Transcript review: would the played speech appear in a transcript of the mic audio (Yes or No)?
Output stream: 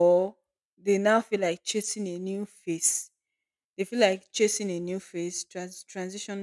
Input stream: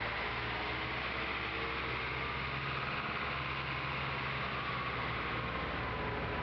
No